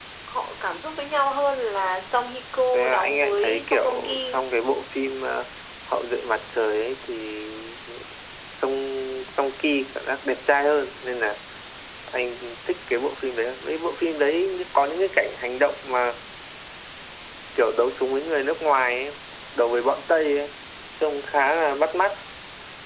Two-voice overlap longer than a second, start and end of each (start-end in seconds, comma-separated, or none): 2.7-4.4